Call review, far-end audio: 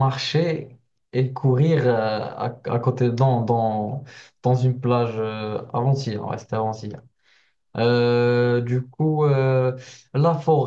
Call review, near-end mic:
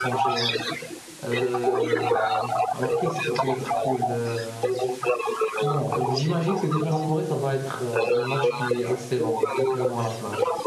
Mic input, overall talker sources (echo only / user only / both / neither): both